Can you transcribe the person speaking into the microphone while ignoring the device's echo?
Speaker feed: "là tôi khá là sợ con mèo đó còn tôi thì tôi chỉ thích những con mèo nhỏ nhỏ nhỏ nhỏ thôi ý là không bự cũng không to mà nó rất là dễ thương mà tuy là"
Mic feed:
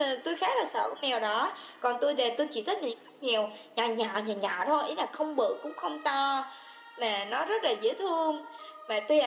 none

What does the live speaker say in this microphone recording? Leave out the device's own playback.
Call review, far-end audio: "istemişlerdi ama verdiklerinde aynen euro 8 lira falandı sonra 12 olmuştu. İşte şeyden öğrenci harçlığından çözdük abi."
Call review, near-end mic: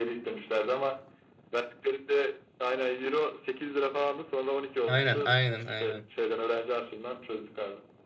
Aynen, aynen, aynen.

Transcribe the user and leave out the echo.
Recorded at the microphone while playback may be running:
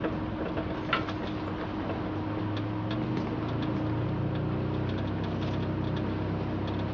none

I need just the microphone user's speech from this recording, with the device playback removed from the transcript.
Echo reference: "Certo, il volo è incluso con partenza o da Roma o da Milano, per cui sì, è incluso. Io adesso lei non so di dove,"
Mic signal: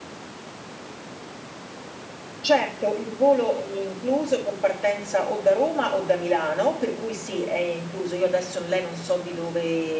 none

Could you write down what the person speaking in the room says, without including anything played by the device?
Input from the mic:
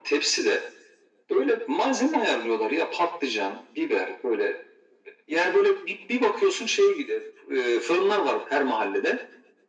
none

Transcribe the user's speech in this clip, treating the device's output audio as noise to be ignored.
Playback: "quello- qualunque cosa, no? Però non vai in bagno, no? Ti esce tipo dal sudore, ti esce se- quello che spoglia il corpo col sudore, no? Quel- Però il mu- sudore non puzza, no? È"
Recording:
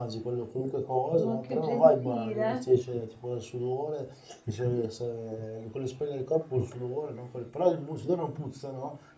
Ma che gentile.

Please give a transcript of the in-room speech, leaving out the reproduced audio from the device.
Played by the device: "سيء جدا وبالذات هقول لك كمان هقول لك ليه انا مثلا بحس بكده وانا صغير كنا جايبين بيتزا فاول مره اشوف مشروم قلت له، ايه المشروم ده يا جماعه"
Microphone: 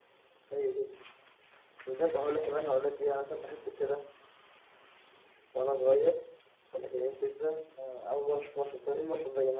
none

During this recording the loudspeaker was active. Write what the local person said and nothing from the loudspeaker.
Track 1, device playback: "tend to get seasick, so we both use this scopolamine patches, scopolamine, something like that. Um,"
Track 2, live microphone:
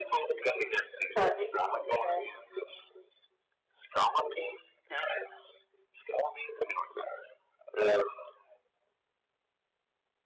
Okay. Okay.

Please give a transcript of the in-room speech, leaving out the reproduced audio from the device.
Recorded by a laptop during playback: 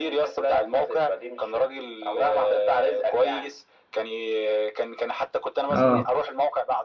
اه

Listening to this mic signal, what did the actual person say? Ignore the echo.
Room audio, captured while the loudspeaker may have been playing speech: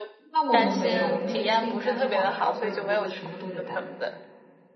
那我们没有，我们得自己带锅碗瓢盆、炉子，什么都得带。

